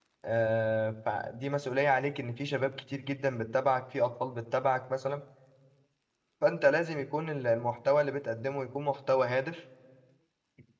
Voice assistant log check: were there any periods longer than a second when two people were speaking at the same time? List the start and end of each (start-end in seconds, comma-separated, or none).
none